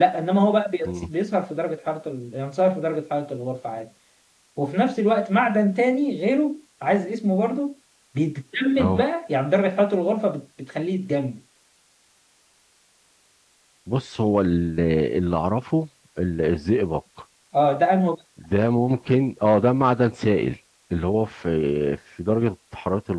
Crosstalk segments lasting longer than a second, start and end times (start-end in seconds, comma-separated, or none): none